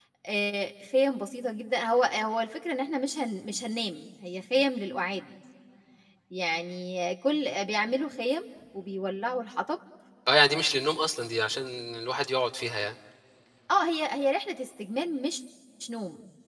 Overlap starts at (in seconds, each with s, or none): none